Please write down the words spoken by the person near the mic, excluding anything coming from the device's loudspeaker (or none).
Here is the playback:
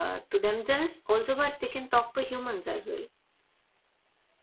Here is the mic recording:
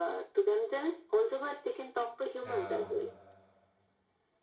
Yeah.